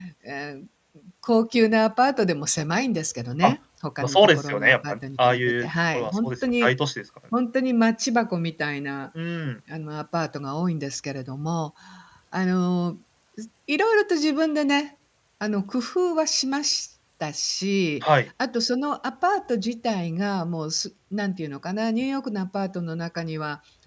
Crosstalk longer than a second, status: present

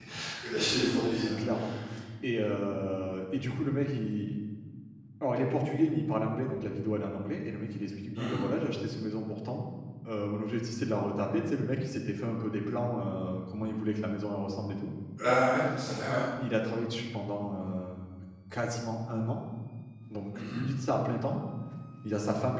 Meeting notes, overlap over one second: none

